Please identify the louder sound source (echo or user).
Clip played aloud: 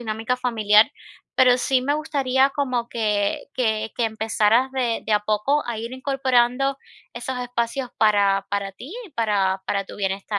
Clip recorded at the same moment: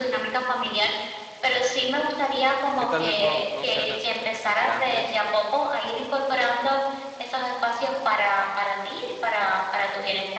echo